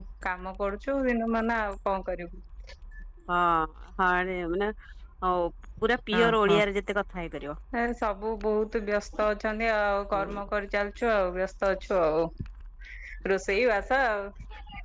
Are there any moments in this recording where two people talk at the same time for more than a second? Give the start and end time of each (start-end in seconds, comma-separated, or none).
none